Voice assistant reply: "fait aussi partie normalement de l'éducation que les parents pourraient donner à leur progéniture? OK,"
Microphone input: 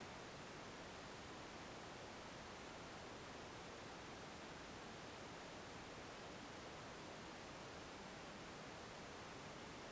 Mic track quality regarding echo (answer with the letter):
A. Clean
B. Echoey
A